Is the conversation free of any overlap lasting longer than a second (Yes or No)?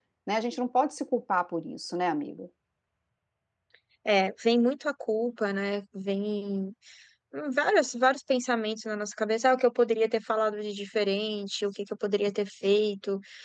Yes